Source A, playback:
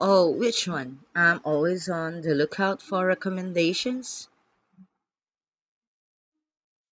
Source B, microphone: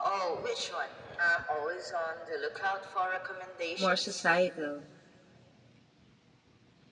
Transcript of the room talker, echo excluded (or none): more societal?